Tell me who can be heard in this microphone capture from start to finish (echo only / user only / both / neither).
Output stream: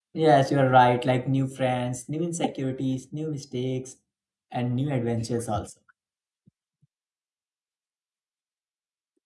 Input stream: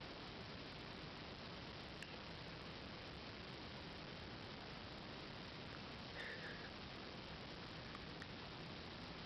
neither